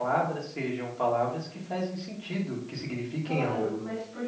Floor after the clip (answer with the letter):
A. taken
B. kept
A